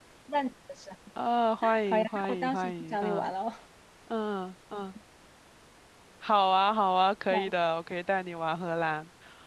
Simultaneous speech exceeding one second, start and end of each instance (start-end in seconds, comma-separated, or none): 1.9-3.3